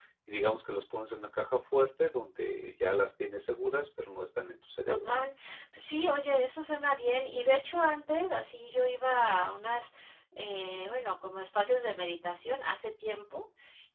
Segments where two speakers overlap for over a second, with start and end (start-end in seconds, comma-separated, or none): none